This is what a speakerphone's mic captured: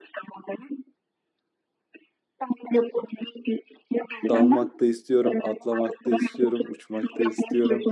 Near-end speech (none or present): present